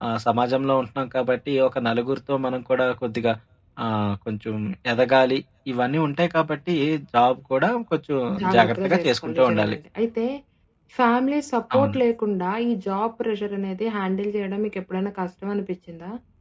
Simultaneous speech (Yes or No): Yes